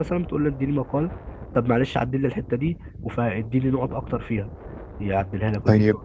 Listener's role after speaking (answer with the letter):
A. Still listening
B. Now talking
B